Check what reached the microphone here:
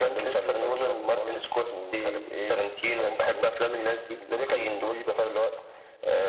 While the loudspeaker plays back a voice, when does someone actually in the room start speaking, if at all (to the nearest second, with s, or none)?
none